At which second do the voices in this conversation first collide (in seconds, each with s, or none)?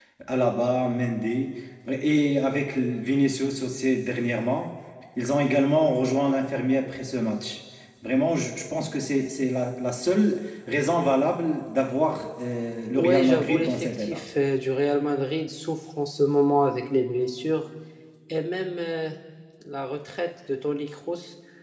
12.9 s